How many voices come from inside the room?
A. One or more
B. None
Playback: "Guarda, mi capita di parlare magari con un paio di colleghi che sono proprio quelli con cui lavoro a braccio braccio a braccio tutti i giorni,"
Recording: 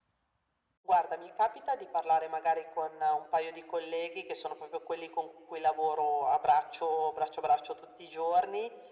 B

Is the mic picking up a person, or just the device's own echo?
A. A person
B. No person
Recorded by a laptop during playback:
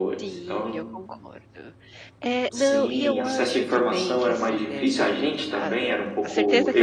A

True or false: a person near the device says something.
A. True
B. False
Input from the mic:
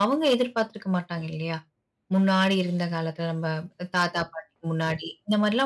A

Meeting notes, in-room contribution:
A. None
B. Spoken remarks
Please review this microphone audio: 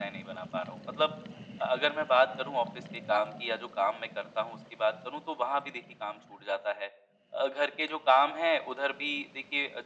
A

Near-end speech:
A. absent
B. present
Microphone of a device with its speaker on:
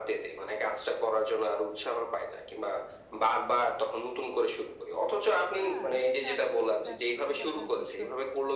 B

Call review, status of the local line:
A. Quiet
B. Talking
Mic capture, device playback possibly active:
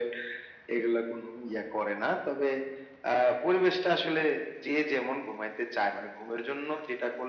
A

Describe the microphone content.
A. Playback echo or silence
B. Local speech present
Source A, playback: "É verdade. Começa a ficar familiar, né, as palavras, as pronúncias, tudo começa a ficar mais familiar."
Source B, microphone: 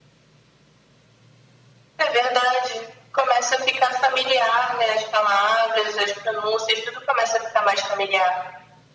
A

